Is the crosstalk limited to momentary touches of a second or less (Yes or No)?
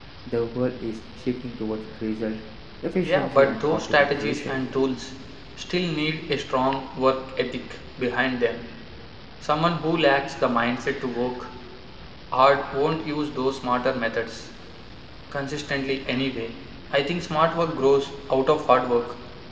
No